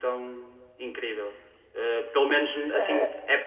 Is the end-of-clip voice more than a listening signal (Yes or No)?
No